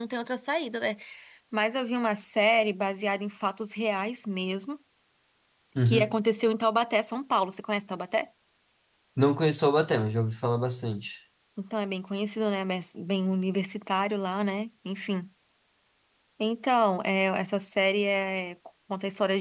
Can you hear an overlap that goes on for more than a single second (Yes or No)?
No